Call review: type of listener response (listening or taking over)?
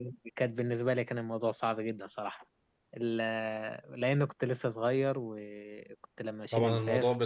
taking over